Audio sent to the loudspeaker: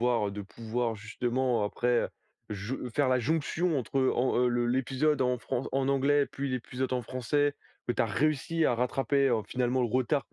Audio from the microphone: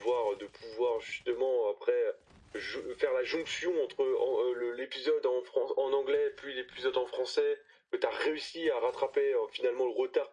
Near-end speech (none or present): none